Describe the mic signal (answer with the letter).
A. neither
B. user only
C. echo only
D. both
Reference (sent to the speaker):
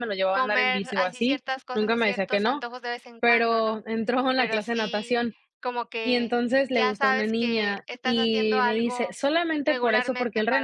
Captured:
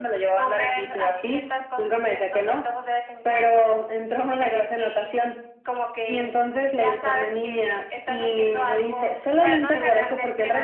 D